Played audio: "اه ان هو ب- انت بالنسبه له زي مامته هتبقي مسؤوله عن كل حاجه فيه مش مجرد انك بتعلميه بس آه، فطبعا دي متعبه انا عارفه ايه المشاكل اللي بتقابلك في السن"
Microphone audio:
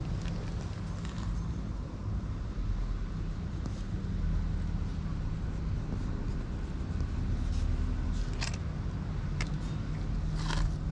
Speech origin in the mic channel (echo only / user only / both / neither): neither